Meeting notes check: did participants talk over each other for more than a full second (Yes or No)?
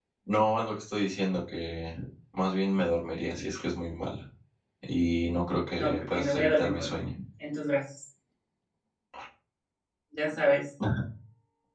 Yes